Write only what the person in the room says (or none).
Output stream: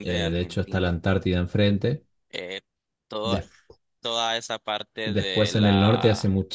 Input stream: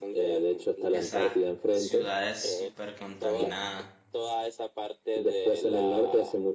Esas ciudades súper contaminadas.